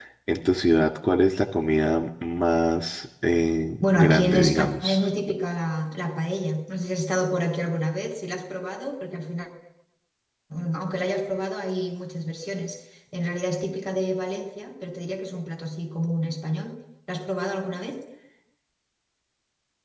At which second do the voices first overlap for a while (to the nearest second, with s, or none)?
4 s